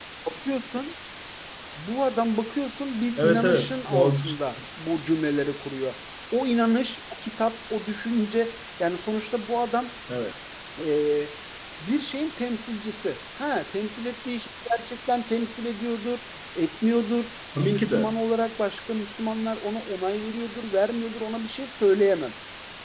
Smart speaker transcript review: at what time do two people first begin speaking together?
3.2 s

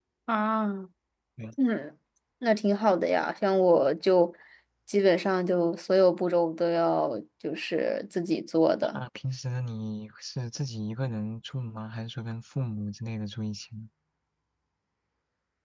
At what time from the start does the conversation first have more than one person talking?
none

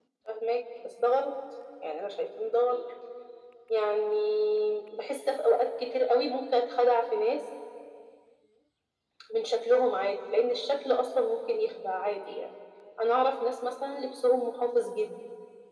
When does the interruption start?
none

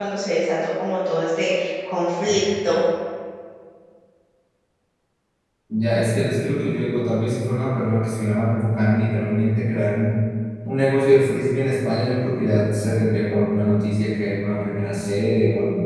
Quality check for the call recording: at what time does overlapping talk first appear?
none

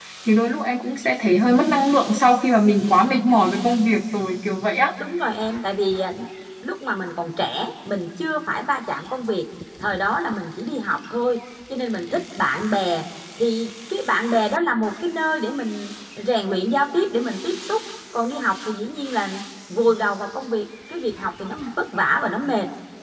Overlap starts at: none

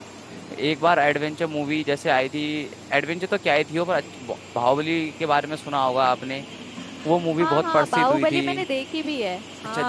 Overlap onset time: 7.4 s

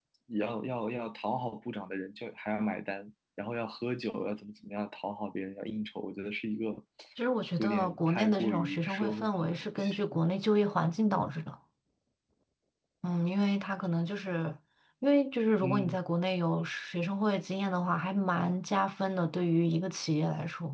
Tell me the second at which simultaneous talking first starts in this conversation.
7.6 s

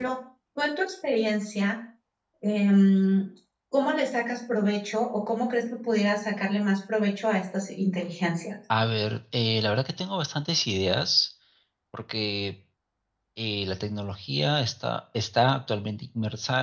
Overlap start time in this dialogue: none

